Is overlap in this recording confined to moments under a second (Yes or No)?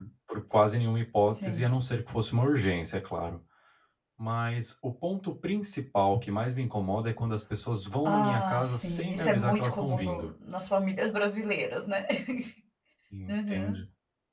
No